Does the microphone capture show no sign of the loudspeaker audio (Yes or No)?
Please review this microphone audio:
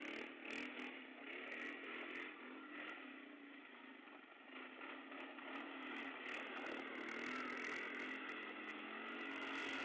Yes